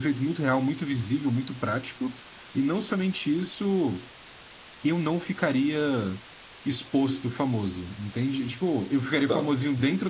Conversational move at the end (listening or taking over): listening